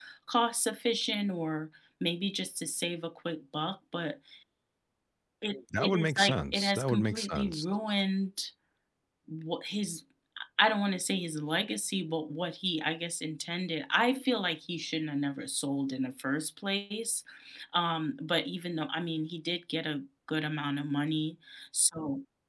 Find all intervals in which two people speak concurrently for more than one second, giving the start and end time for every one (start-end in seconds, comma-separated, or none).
5.8-7.7